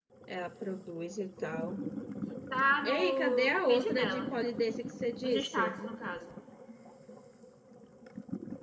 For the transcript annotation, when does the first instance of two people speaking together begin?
2.8 s

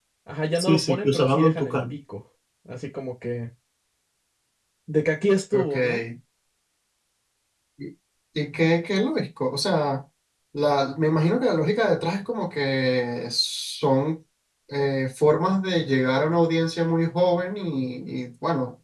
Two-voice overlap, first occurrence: 0.6 s

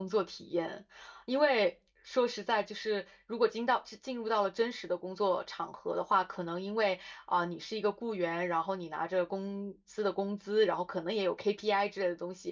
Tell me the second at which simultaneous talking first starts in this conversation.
none

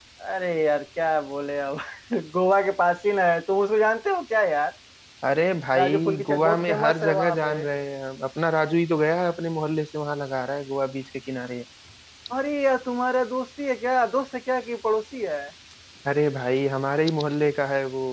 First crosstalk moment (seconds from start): 5.8 s

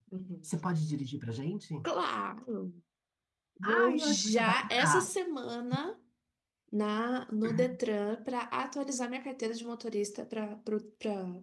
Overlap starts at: 3.6 s

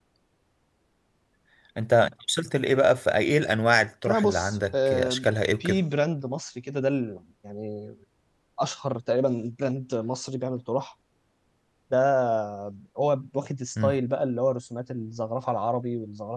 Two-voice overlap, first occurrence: 4.1 s

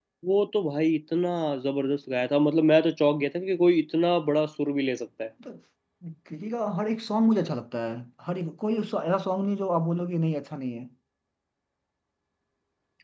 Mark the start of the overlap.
none

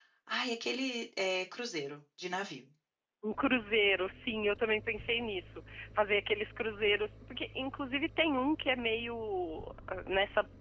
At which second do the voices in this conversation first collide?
none

